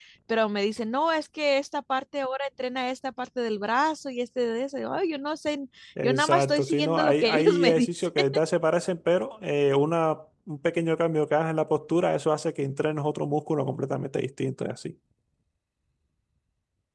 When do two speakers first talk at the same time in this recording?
6.0 s

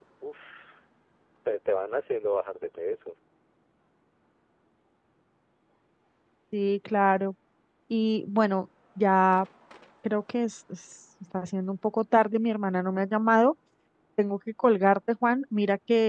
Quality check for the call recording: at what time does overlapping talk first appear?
none

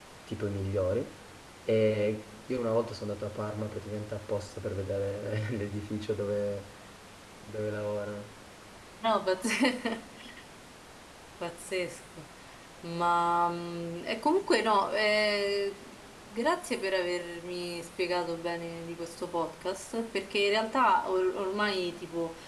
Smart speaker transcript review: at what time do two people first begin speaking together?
none

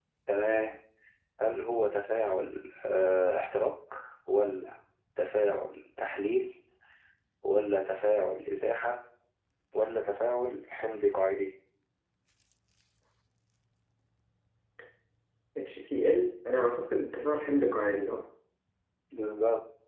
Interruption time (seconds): none

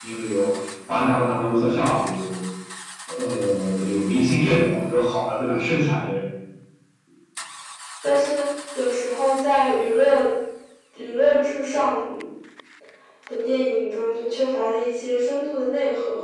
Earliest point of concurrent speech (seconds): none

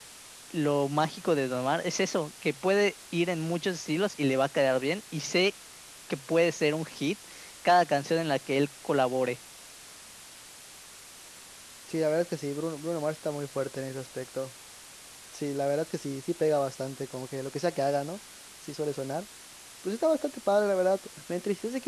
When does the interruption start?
none

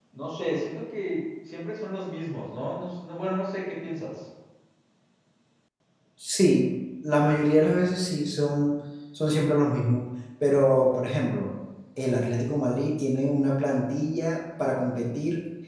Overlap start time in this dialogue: none

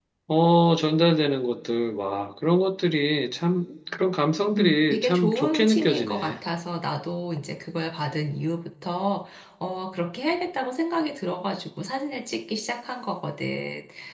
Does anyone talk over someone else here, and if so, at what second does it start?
4.5 s

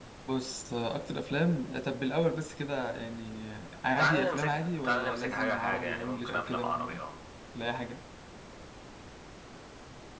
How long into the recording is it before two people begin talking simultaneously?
4.0 s

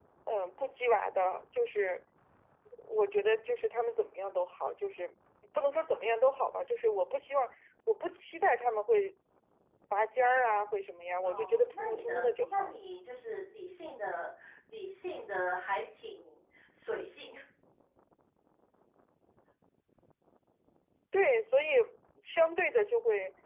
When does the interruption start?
11.2 s

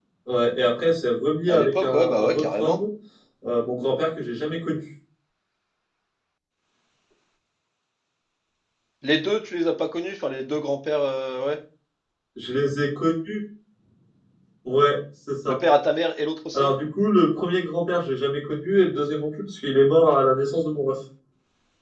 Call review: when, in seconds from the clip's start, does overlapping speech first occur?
1.5 s

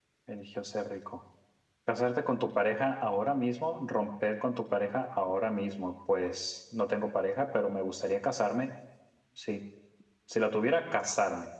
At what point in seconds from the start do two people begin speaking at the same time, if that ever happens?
none

